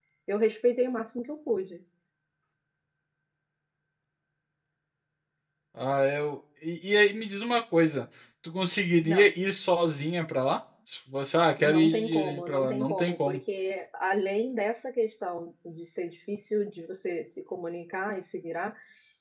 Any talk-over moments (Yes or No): Yes